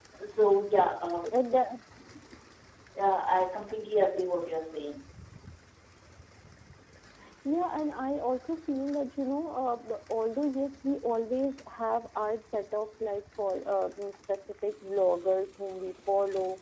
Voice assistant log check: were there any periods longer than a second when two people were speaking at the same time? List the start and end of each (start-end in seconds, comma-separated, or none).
none